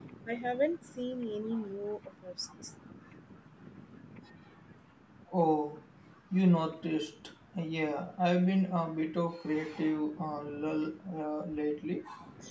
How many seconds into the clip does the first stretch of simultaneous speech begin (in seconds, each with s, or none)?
none